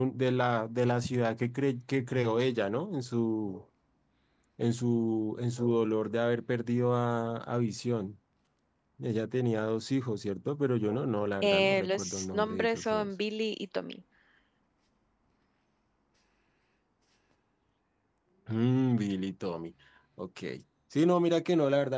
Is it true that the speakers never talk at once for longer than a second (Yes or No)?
No